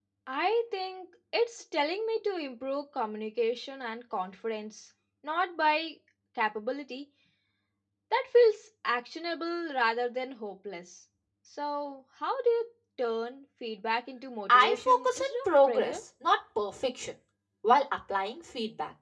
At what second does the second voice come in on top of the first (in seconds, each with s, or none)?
14.5 s